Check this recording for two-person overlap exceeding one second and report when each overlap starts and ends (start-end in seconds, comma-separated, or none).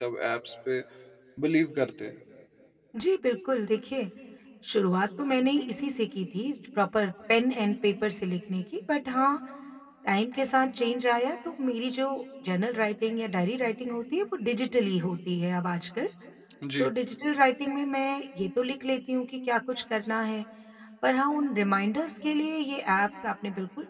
none